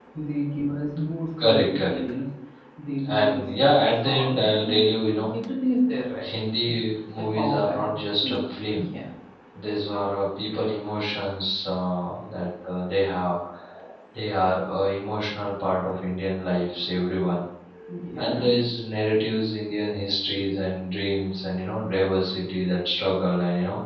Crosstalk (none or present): present